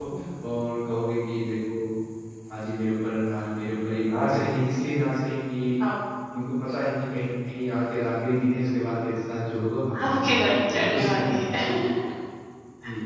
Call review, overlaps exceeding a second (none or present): present